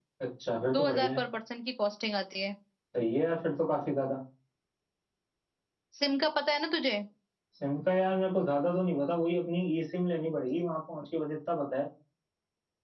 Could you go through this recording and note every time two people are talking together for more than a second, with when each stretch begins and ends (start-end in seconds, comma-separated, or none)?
none